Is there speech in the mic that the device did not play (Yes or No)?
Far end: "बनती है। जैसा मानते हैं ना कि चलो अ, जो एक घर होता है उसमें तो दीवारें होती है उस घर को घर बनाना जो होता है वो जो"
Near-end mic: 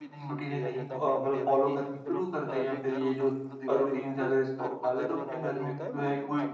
Yes